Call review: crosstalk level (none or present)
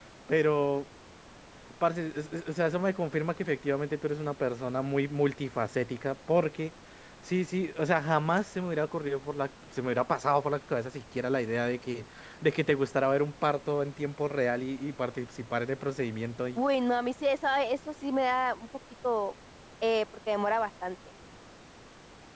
none